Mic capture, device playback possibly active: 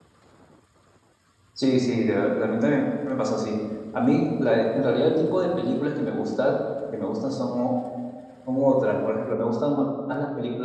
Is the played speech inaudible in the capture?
Yes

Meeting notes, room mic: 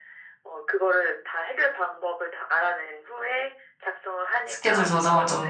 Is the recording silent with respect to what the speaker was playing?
No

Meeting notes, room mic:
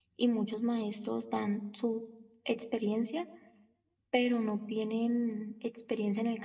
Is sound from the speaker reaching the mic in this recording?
No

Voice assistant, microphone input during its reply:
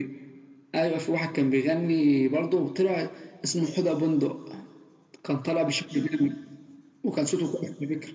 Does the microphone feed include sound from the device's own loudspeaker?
Yes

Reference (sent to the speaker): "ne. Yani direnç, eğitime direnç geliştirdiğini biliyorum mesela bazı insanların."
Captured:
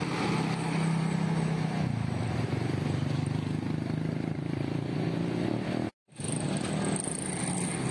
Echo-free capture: Yes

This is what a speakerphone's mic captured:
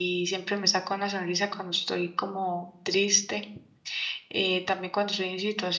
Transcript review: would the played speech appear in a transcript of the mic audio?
No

